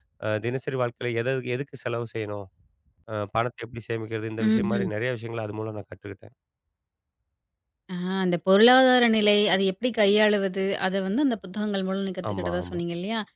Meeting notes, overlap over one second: none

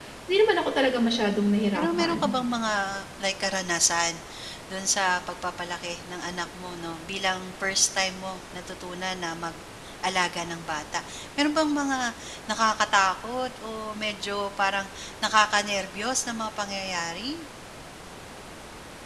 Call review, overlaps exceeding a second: none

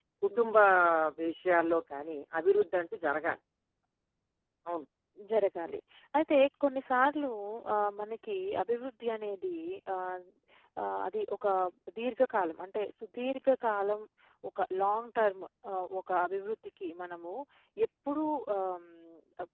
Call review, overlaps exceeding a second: none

